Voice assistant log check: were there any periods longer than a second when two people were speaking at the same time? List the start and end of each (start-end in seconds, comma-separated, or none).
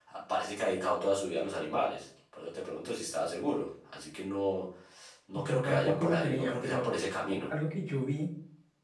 5.3-6.9